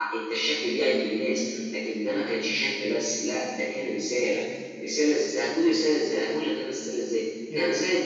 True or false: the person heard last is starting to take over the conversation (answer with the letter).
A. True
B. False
B